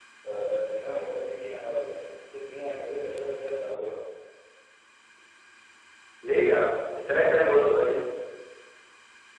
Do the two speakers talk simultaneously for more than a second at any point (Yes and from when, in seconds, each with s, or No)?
No